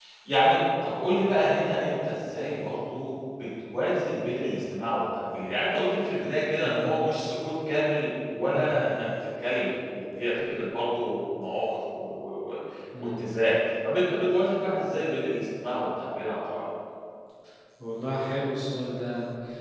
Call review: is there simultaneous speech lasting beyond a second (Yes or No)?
No